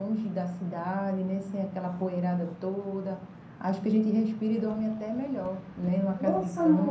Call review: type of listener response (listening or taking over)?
taking over